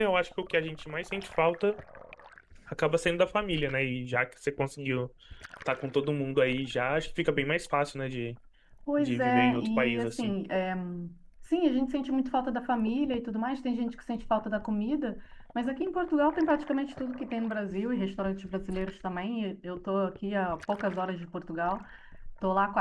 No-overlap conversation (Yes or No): No